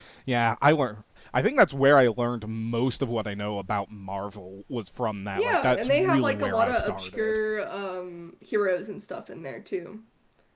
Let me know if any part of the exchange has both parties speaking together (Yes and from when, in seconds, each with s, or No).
Yes, from 5.4 s